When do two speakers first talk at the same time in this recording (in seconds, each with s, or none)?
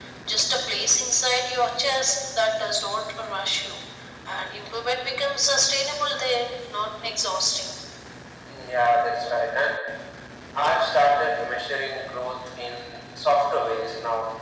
none